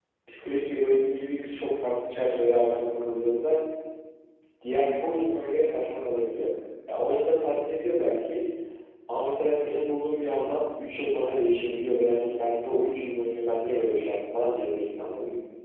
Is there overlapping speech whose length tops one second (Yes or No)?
No